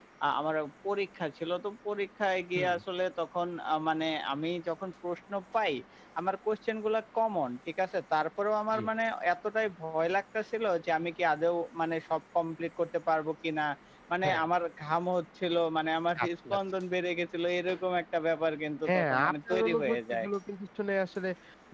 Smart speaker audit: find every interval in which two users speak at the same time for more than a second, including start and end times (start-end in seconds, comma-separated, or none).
18.9-20.3